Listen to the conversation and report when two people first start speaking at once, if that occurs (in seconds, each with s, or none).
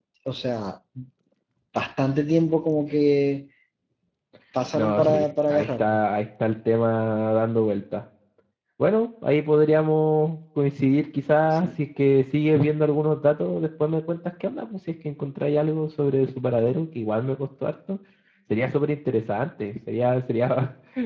4.8 s